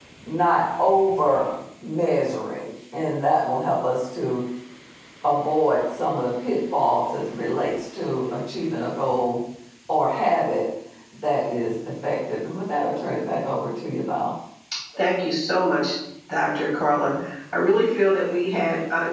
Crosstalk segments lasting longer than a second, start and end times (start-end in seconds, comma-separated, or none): none